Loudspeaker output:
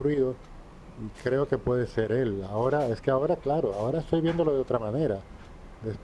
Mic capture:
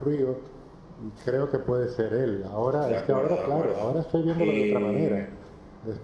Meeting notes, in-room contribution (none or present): present